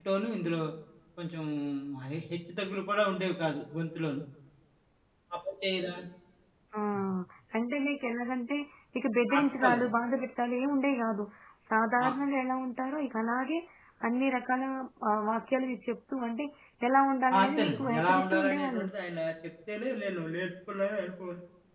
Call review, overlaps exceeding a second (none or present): present